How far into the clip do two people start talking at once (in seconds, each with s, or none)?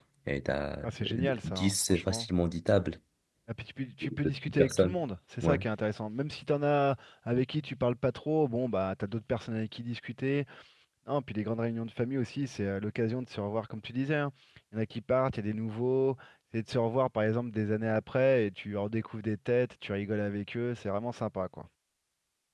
0.8 s